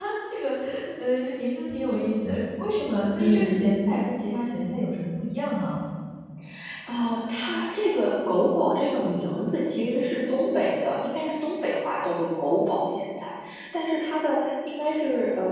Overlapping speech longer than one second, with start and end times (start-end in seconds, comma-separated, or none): none